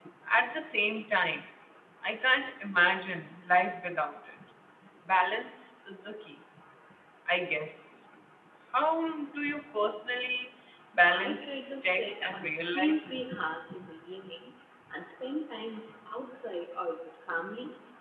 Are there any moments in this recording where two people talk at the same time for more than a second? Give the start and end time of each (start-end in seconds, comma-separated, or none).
11.1-13.0